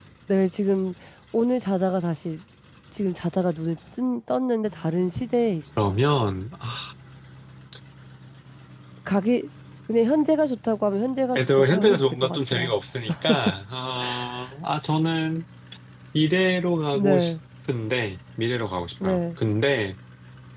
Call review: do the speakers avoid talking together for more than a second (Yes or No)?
No